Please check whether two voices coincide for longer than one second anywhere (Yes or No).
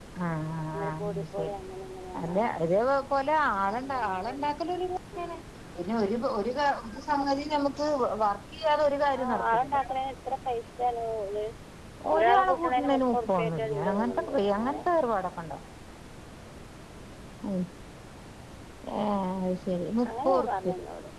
Yes